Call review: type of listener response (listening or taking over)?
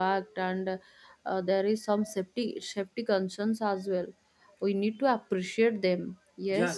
taking over